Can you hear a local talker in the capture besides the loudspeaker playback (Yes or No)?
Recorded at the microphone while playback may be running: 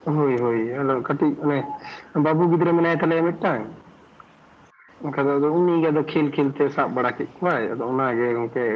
No